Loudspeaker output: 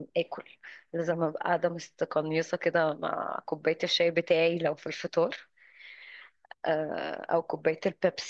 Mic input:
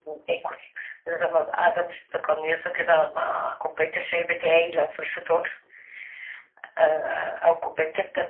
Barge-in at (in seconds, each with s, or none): none